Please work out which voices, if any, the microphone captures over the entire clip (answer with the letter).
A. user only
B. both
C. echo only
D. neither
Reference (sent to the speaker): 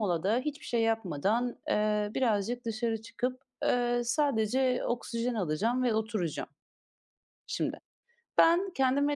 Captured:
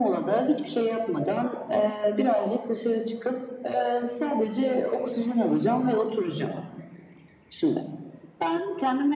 C